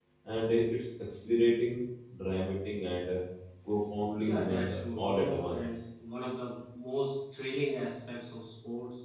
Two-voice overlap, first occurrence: 4.2 s

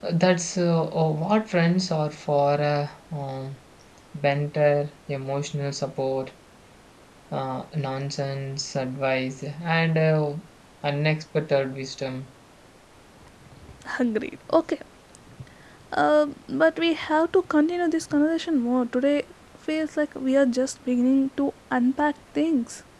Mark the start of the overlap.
none

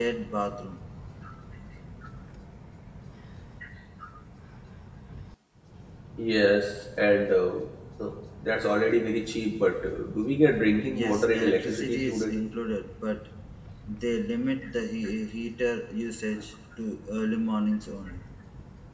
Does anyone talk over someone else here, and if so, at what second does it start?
10.9 s

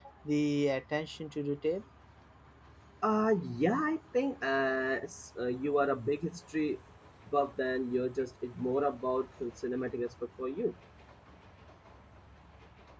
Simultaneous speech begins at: none

